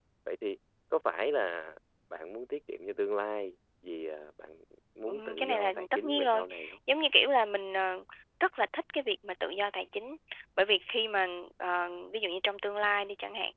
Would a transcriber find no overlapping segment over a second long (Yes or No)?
No